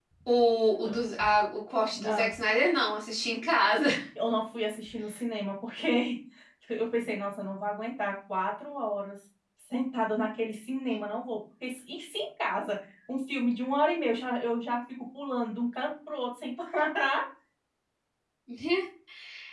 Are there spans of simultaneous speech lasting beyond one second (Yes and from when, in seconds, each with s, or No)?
No